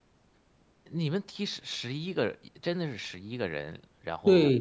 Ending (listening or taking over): taking over